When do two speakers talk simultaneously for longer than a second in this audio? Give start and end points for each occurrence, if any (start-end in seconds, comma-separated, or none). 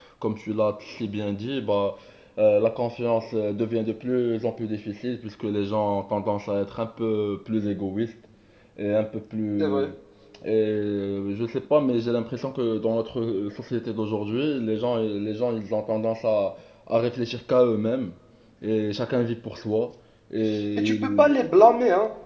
none